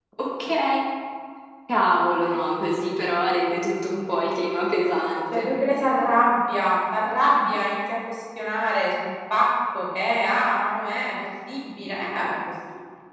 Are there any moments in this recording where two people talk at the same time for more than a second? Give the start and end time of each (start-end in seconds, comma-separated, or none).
none